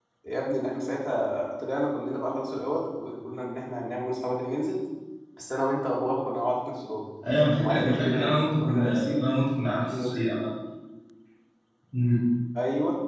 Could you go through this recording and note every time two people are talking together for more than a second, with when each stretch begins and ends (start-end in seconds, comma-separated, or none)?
7.6-9.3